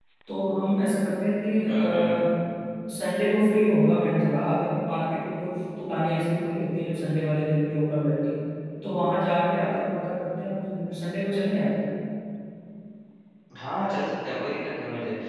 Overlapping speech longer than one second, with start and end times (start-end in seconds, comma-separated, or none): none